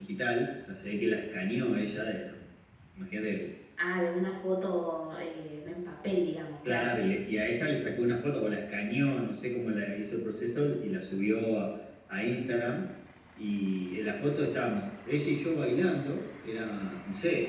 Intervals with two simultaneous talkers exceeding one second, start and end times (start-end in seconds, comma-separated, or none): none